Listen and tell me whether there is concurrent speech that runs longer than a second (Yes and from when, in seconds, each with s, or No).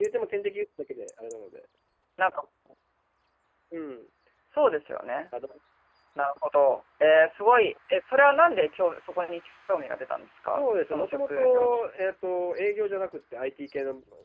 Yes, from 10.5 s